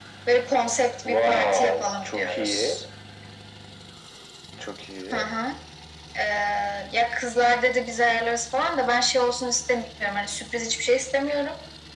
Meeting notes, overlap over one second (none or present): present